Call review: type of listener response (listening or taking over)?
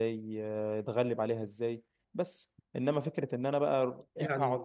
listening